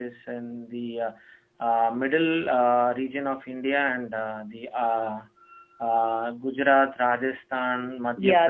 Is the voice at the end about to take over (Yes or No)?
Yes